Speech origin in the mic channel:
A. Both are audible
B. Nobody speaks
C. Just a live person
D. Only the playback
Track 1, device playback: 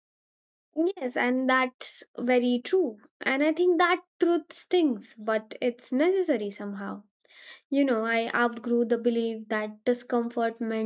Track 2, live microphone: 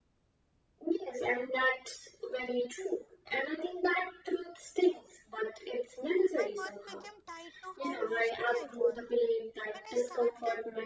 A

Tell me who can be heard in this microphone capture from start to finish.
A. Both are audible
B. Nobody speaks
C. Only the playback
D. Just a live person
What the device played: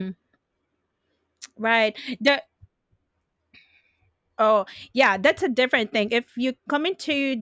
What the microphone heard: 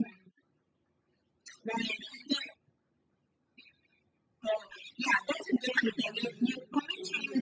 A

